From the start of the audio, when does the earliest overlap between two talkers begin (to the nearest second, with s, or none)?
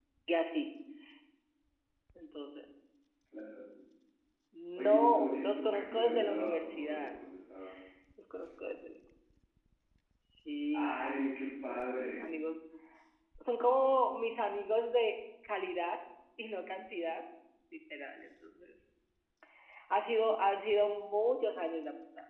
5 s